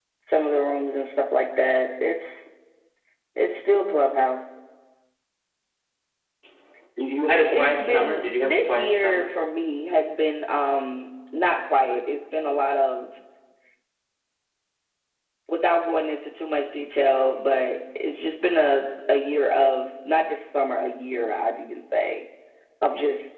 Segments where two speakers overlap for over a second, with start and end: 7.5-9.2

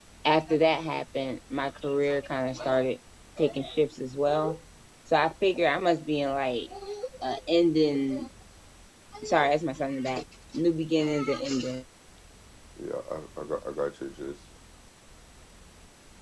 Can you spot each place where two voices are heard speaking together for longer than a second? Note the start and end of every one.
none

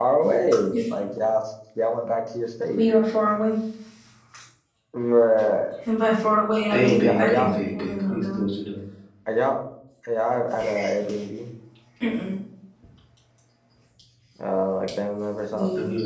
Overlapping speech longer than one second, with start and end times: 6.7-8.5

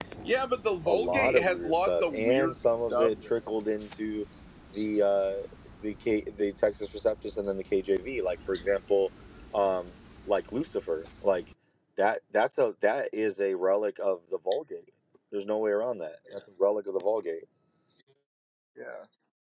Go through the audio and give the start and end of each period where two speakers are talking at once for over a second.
0.9-3.3

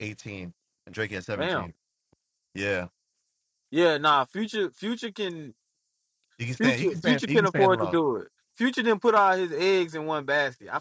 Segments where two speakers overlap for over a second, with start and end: 6.6-8.0

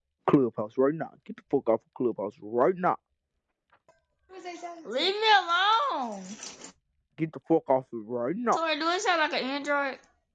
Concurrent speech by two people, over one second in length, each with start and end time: none

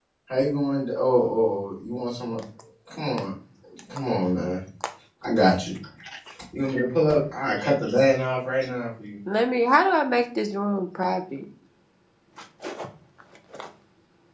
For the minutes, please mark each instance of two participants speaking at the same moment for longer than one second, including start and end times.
none

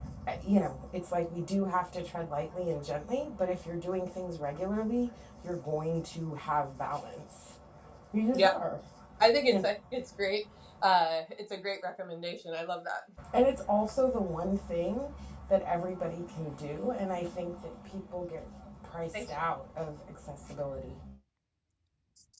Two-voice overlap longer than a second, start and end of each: none

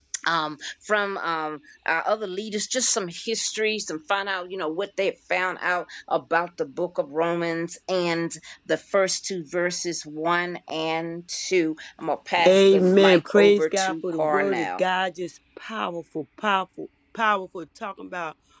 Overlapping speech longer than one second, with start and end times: 12.4-14.8

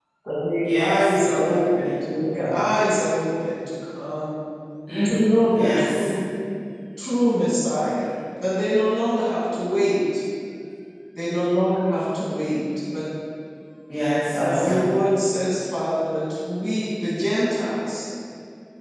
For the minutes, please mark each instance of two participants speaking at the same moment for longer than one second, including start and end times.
0.6-2.5

